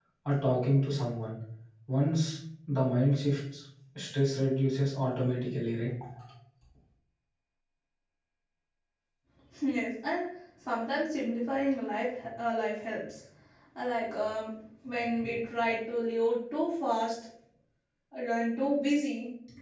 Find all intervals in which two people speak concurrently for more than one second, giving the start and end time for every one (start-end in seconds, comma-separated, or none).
none